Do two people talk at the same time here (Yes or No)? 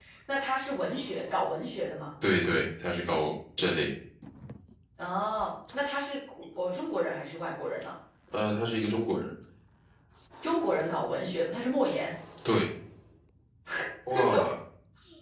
No